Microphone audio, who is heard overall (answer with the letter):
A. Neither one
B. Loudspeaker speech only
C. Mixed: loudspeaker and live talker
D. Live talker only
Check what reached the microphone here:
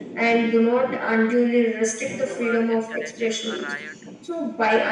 C